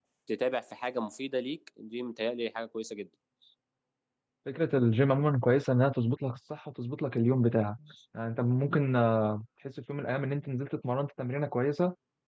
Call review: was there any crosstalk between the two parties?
No

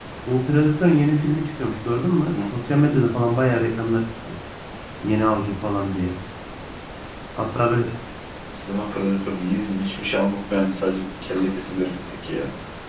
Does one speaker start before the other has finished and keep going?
No

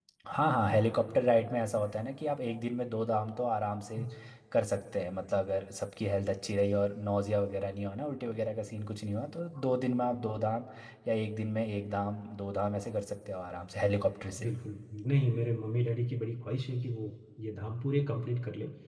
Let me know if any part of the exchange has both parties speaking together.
No

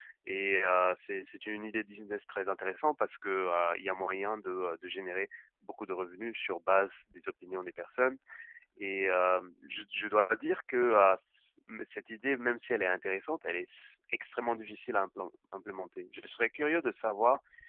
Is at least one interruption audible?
No

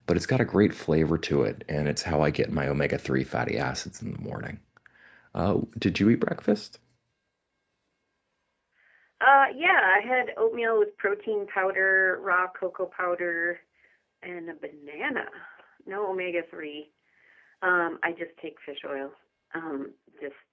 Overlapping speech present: No

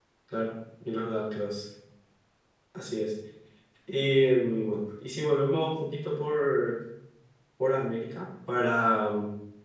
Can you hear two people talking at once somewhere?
No

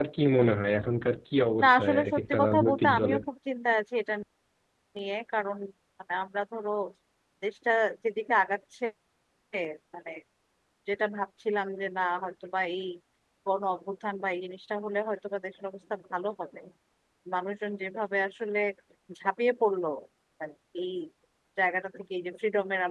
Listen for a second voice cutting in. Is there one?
Yes, from 1.6 s

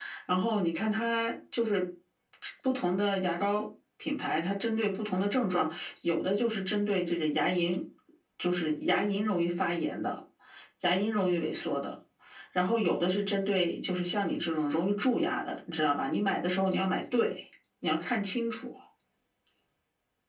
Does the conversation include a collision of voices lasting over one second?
No

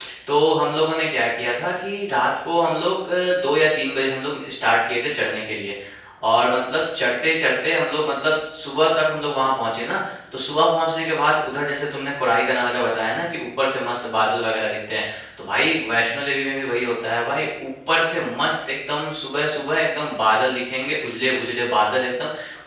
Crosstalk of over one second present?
No

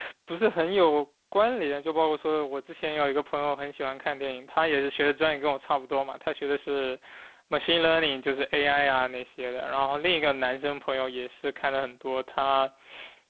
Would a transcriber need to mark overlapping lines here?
No

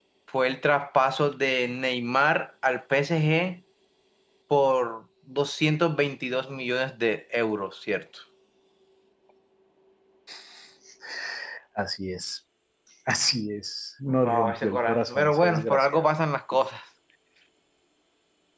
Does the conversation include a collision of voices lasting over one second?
Yes, from 14.2 s

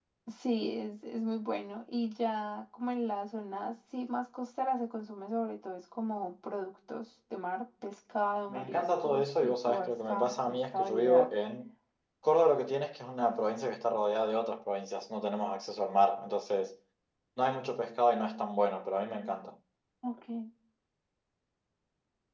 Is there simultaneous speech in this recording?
Yes, from 8.5 s

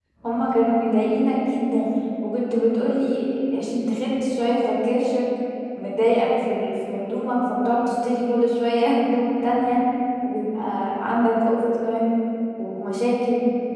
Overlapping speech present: No

